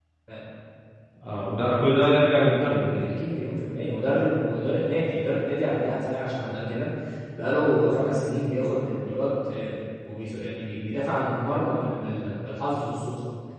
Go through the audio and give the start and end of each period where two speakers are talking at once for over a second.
none

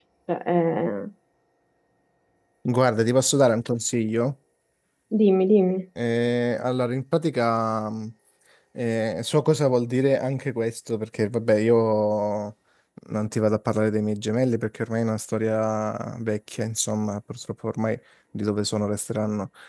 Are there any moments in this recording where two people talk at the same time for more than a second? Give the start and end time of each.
none

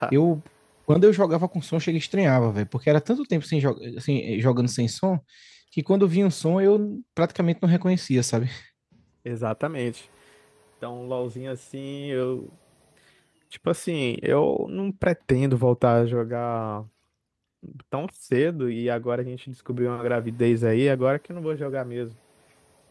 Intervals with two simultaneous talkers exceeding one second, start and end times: none

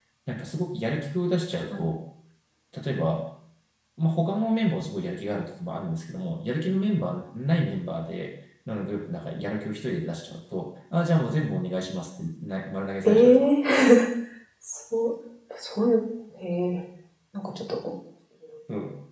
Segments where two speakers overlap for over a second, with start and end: none

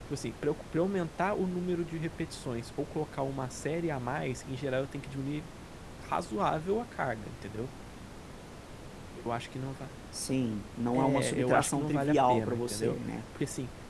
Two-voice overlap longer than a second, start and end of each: 10.9-13.0

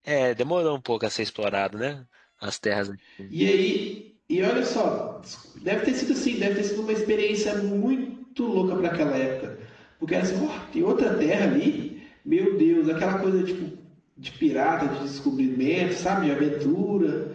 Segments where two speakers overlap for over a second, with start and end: none

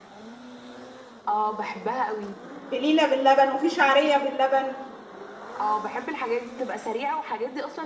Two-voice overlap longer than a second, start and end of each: none

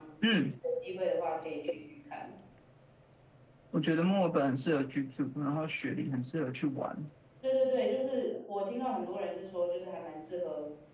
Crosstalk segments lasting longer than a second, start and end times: none

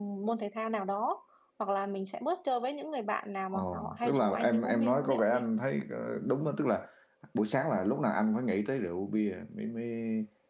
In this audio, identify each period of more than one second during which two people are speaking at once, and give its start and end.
3.5-5.5

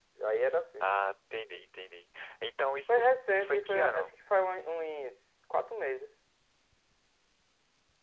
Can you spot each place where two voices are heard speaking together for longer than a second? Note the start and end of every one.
2.9-4.1

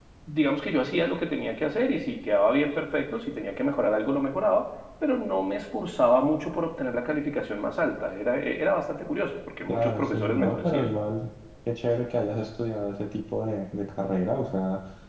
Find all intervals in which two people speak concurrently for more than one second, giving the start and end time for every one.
9.7-10.9

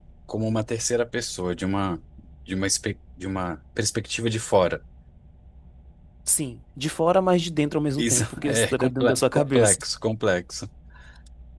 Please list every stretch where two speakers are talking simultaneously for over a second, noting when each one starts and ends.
8.0-9.8

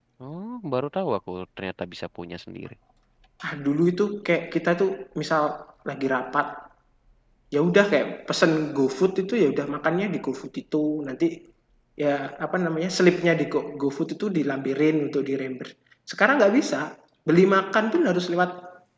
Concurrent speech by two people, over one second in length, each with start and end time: none

